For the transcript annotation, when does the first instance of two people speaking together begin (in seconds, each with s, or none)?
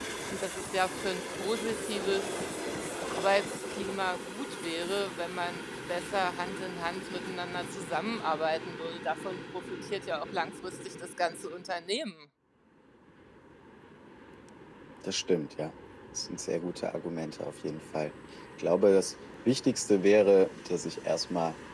none